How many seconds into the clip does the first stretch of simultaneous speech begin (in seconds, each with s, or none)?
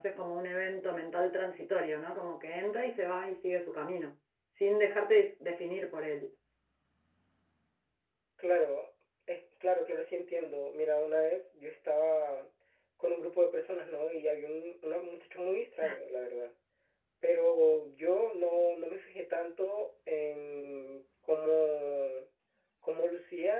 none